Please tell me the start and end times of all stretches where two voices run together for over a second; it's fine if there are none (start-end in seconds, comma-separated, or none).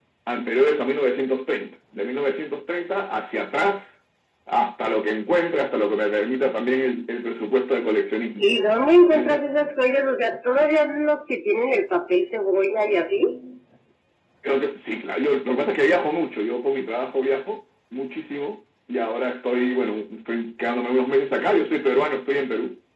none